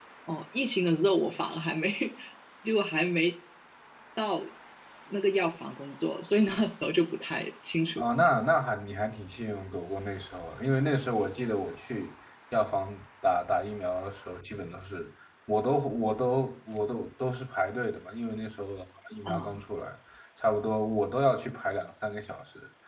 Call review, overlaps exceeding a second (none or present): none